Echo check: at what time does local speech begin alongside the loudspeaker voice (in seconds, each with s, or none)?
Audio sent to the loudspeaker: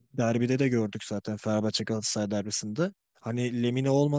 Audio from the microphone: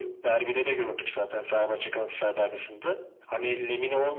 none